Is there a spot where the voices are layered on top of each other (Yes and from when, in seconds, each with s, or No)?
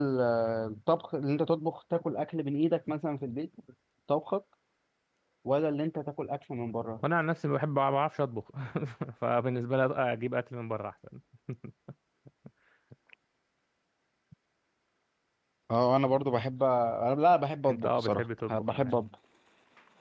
Yes, from 17.7 s